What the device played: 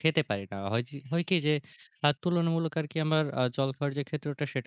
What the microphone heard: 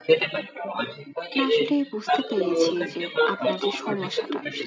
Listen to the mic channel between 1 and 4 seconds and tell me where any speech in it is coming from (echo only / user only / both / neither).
both